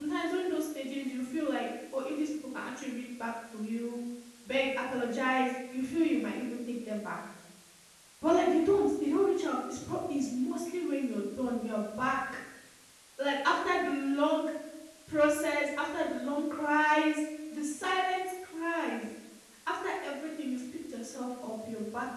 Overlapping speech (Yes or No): No